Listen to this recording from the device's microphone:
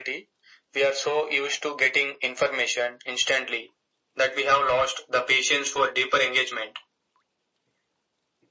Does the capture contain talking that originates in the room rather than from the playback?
No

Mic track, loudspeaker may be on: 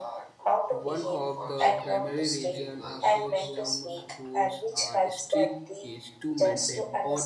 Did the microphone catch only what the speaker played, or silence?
No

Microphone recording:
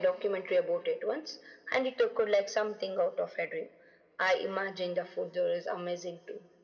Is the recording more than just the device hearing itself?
No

